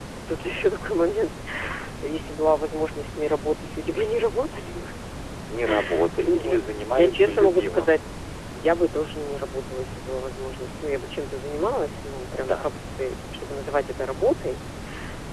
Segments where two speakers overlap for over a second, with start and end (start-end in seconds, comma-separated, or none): 6.3-8.0